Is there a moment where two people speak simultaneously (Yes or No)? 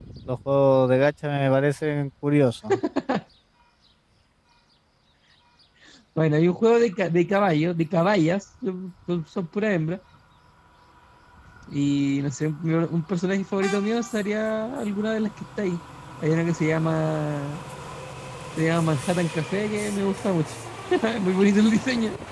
No